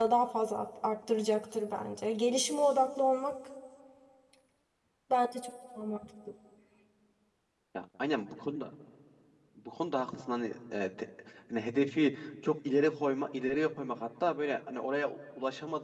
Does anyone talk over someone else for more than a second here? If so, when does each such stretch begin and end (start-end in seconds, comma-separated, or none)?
none